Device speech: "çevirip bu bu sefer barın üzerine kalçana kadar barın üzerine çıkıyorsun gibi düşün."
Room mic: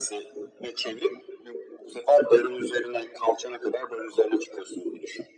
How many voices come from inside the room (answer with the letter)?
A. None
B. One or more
A